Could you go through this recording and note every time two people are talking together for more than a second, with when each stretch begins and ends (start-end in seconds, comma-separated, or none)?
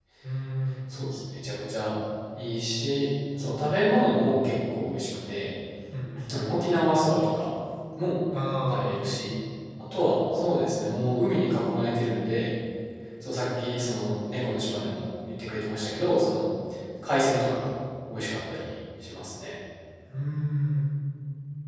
none